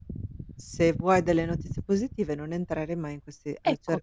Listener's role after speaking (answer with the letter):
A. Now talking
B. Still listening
B